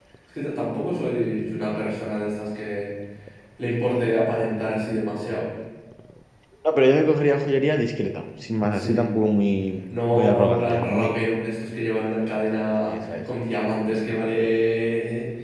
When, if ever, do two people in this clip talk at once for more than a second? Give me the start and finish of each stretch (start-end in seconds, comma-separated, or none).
10.1-11.4